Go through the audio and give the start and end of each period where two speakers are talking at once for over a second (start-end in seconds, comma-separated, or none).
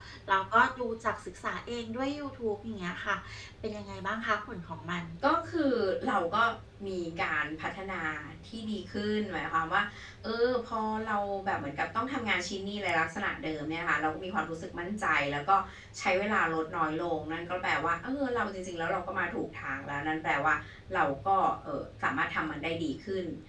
none